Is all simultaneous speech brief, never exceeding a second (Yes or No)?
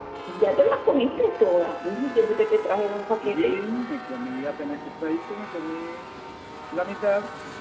Yes